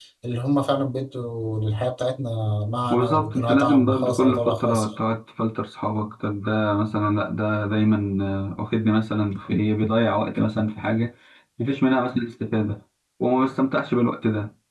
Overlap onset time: 2.9 s

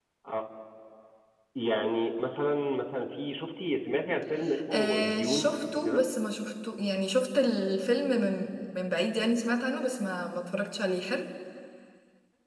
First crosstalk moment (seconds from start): 4.7 s

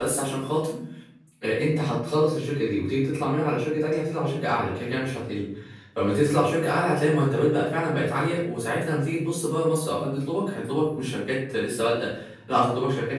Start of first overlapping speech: none

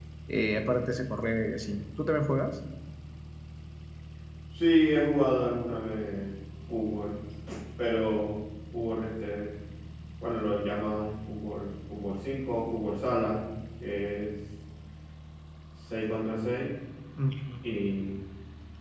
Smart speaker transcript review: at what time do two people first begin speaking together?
none

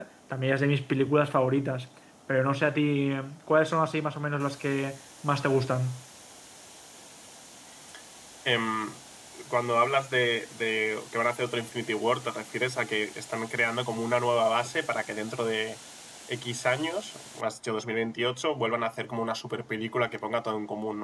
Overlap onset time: none

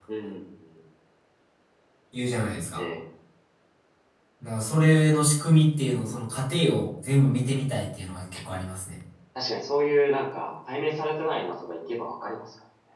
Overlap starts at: none

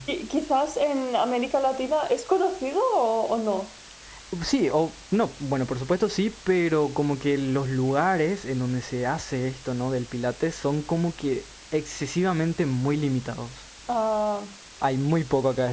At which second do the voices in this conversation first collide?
none

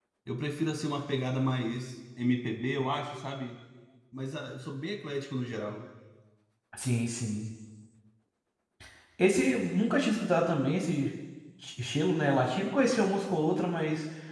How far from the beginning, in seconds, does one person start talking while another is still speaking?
none

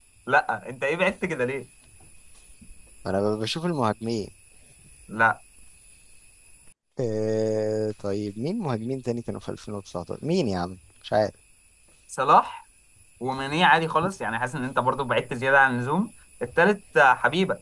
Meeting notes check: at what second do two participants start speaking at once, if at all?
none

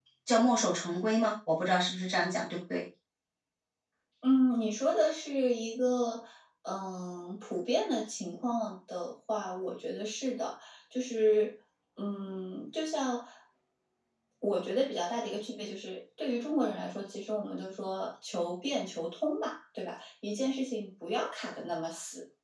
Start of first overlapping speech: none

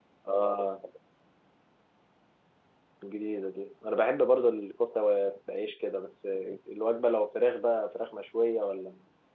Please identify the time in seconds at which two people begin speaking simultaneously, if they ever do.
none

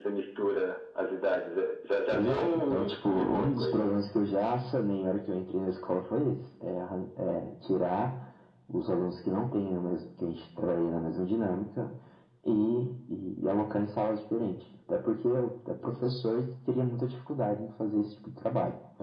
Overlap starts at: 2.1 s

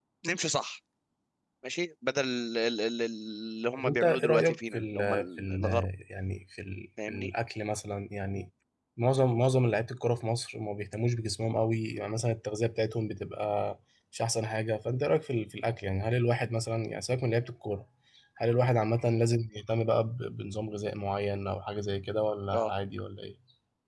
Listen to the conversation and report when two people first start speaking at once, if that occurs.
3.8 s

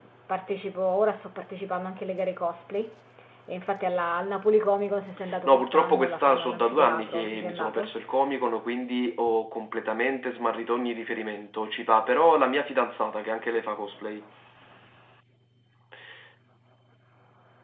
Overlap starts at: 5.3 s

